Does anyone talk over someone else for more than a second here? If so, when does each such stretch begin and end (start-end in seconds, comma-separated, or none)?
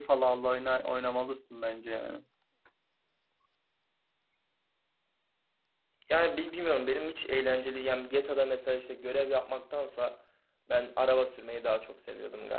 none